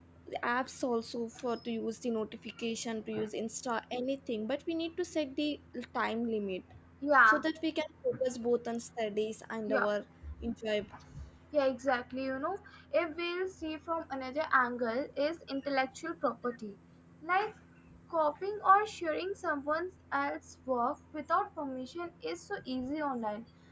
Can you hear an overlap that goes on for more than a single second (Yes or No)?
No